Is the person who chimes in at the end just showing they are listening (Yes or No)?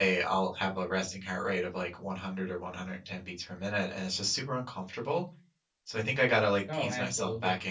Yes